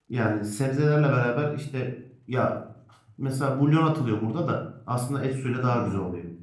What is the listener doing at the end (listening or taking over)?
taking over